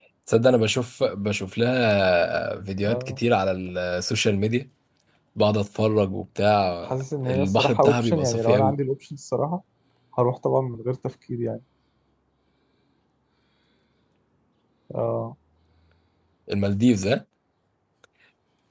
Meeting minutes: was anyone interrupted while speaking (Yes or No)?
Yes